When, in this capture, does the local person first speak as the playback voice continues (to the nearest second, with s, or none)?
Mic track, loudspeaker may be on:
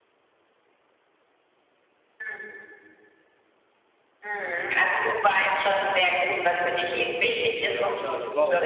8 s